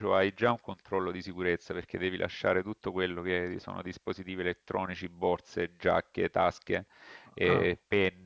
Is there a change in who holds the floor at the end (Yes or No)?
No